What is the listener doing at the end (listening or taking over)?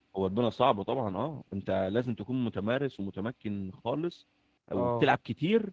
listening